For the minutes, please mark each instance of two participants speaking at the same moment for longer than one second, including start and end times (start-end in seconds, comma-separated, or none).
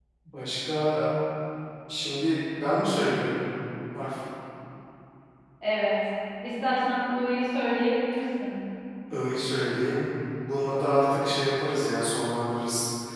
none